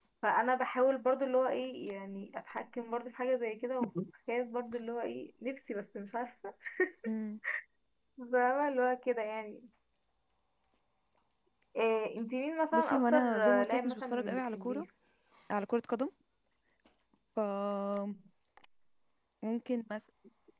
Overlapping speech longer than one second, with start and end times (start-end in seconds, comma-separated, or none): 12.7-14.8